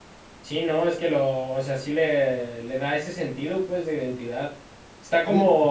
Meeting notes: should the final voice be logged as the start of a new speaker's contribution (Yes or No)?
No